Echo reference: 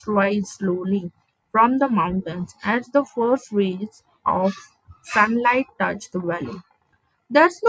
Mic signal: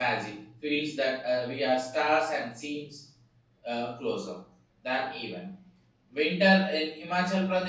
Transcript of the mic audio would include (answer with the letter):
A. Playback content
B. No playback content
B